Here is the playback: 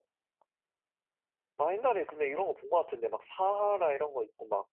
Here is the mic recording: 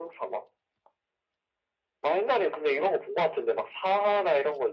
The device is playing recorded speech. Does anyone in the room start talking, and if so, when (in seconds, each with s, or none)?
none